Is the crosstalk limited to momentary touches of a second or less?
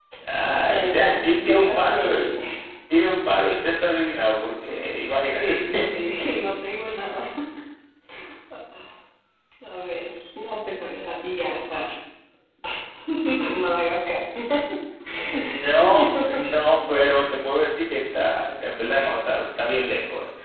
No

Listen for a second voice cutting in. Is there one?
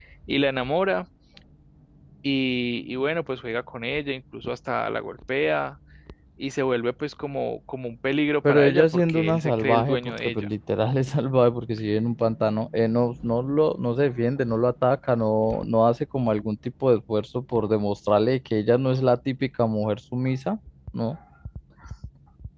Yes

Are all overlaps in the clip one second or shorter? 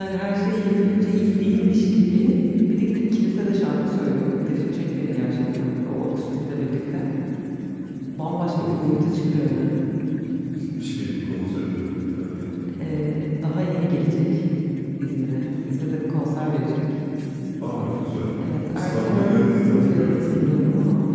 No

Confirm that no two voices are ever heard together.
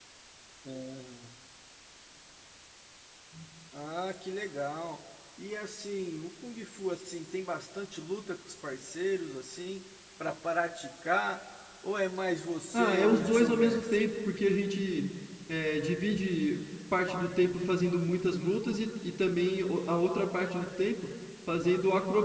No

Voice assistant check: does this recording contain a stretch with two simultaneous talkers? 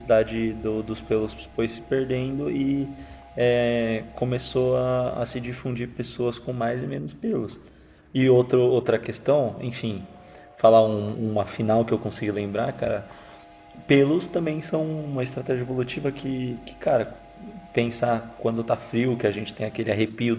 No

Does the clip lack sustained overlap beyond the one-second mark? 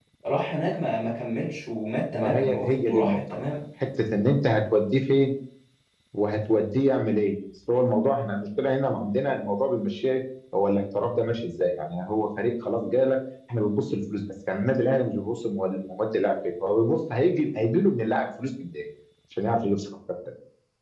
No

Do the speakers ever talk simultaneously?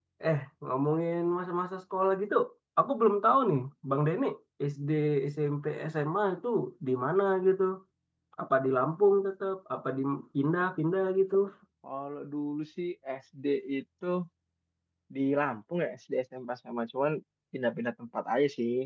No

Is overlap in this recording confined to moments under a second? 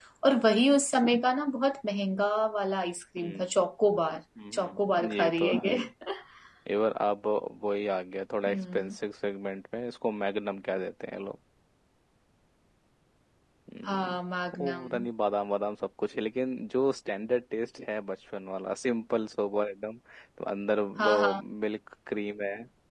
No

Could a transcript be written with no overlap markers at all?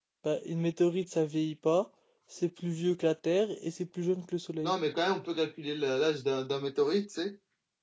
Yes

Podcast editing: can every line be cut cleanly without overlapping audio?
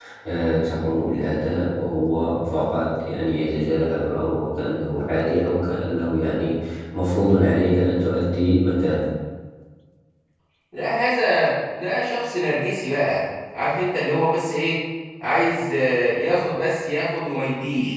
Yes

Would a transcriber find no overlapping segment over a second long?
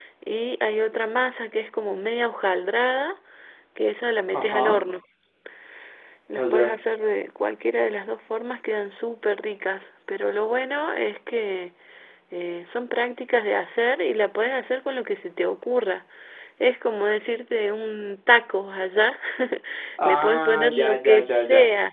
No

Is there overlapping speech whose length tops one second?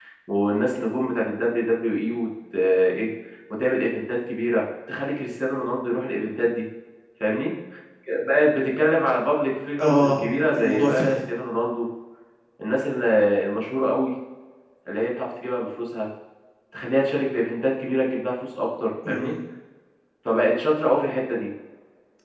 Yes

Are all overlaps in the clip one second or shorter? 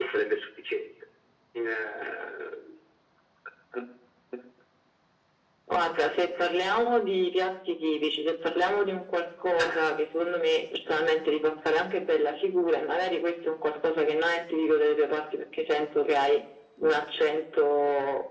Yes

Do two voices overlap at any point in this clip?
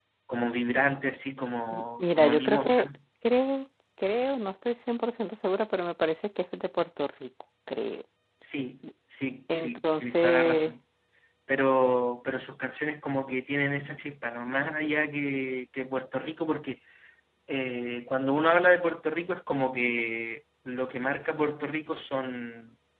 Yes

